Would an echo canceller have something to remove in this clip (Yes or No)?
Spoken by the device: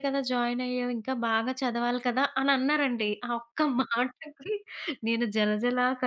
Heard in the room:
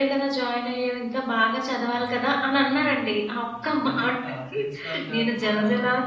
Yes